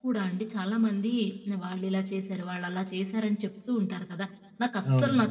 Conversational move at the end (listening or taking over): listening